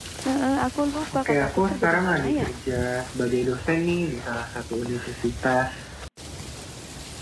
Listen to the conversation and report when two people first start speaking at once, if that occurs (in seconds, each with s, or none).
1.1 s